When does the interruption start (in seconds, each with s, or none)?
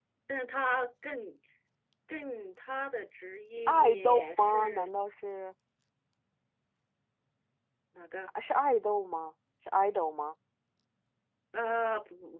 3.7 s